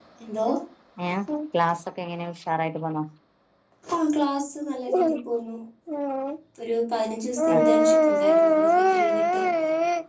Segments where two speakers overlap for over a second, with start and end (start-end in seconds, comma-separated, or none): 7.5-9.4